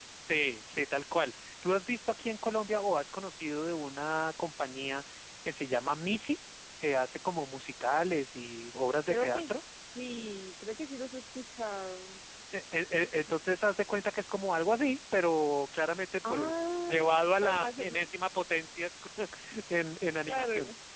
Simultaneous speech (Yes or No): Yes